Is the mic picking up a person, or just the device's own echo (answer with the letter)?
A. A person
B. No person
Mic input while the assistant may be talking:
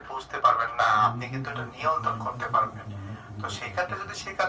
A